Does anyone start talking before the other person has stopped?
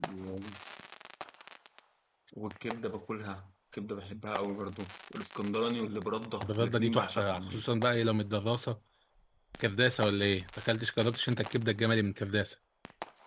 Yes, from 6.4 s

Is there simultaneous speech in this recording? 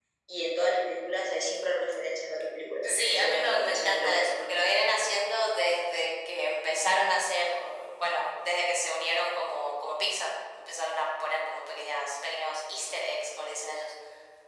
Yes, from 2.8 s

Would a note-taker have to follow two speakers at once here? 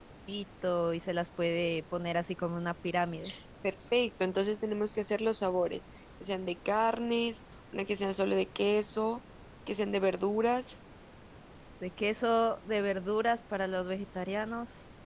No

